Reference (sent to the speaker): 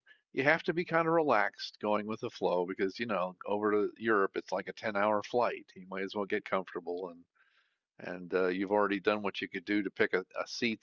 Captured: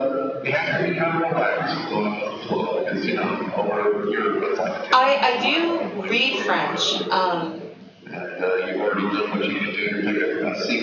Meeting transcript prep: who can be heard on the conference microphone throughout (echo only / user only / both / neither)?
both